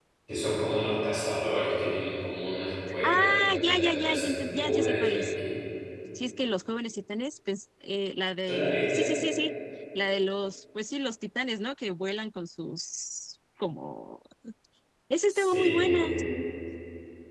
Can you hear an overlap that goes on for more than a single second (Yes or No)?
Yes